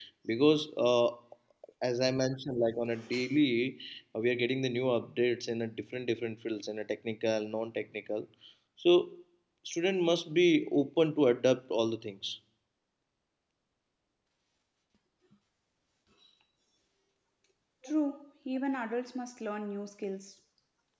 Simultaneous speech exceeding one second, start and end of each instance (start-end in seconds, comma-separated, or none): none